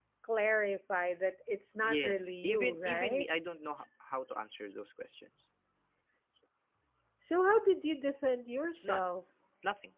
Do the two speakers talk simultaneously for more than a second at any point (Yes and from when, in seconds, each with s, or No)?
Yes, from 1.8 s